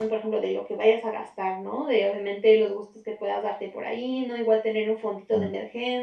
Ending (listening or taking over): listening